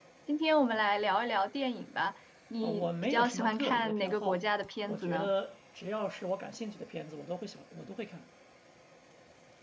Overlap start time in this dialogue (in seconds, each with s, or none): 2.6 s